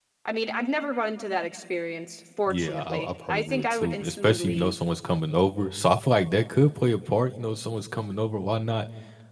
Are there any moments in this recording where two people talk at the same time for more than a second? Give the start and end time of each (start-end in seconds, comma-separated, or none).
2.5-4.7